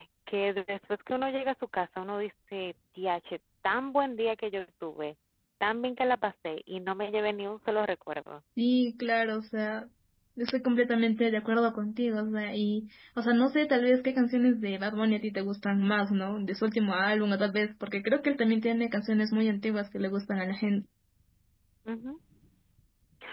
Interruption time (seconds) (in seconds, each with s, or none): none